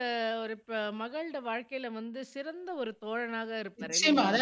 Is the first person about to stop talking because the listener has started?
Yes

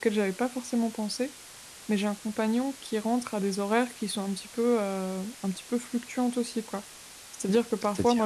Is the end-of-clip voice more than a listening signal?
No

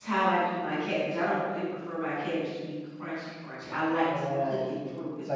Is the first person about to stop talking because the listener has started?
Yes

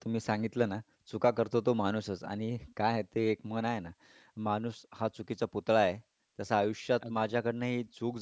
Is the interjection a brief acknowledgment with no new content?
Yes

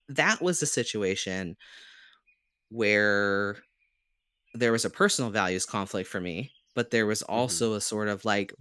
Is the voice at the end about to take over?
No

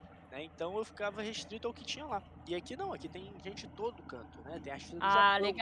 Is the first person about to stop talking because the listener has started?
No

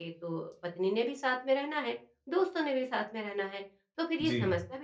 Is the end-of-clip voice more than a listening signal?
No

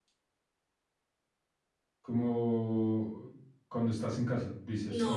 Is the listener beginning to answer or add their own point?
Yes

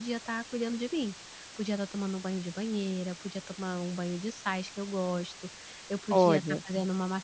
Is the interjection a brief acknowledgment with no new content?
Yes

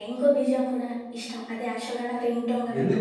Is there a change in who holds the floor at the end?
Yes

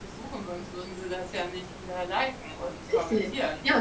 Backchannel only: No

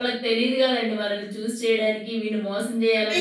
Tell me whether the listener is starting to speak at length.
No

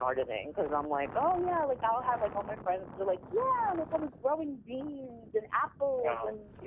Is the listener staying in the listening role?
Yes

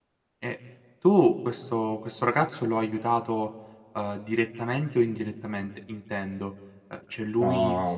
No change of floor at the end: Yes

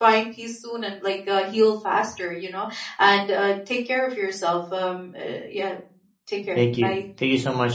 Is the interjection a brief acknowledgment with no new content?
No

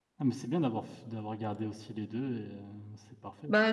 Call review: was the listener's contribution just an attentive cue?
No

